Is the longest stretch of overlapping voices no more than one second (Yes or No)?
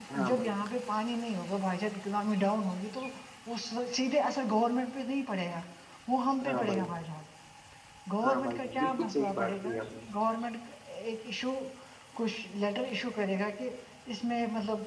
No